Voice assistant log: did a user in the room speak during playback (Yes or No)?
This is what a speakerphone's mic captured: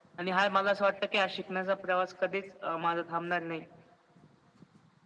No